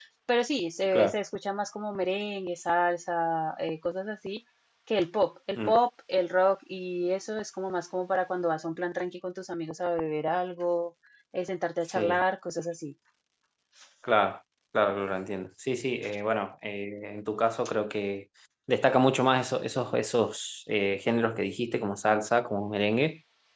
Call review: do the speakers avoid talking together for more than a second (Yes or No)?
Yes